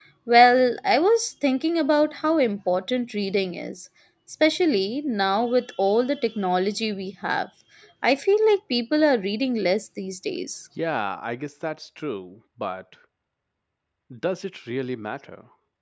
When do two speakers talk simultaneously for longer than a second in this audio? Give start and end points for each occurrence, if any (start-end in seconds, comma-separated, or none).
none